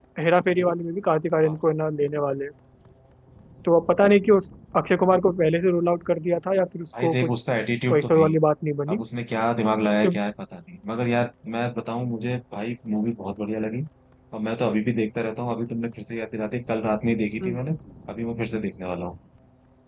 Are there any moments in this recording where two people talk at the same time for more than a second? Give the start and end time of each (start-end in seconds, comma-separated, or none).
none